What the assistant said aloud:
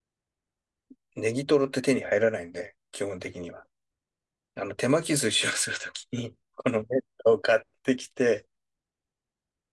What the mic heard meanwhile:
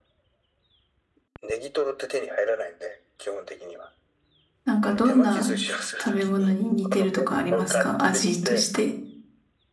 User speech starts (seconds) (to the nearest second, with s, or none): 5 s